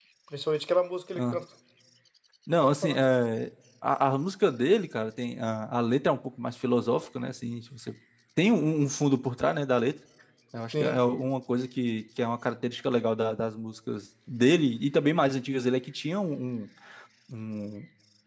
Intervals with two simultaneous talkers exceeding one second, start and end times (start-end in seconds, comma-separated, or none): none